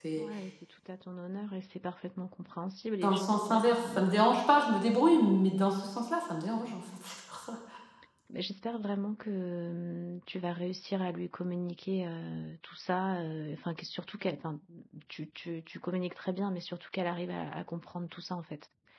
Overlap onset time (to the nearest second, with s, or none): 3 s